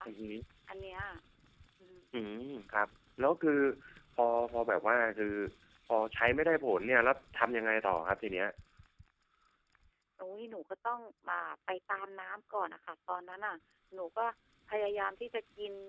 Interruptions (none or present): none